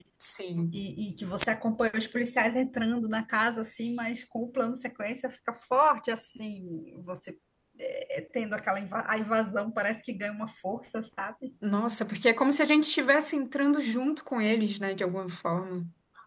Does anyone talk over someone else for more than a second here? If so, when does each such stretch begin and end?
none

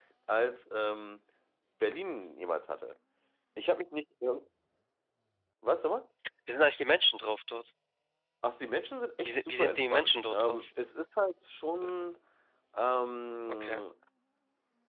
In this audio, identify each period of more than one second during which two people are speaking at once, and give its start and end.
9.2-10.7

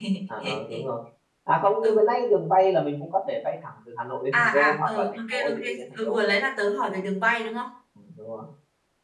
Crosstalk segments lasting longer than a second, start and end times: 4.3-6.3

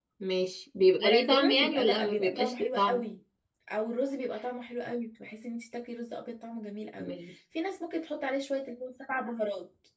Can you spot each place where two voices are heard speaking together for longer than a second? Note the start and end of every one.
1.0-3.0

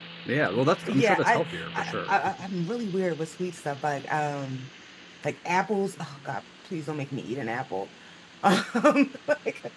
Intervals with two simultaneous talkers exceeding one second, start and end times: 0.9-2.2

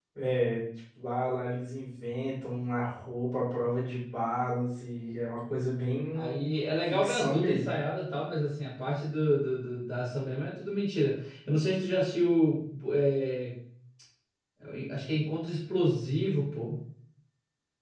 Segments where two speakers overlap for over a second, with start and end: 6.1-7.7

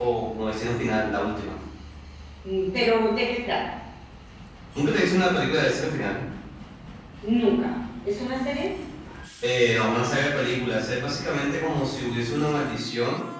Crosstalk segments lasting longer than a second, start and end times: none

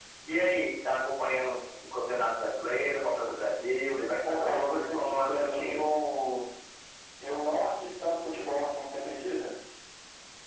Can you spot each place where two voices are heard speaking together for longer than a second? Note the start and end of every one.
4.3-5.9

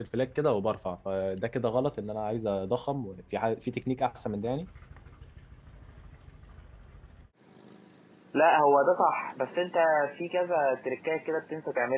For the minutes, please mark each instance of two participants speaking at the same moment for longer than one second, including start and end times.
none

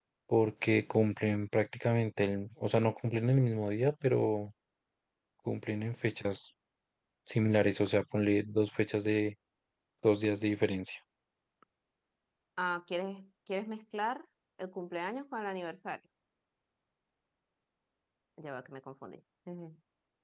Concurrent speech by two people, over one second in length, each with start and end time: none

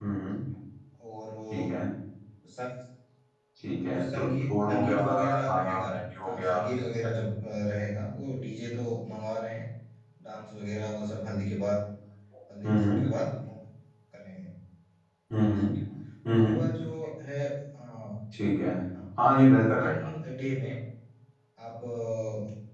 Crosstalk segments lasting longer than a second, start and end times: 3.9-5.8

